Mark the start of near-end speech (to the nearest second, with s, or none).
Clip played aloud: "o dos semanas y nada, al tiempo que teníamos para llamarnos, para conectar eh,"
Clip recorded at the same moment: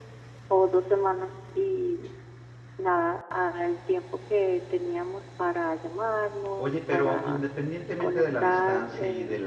7 s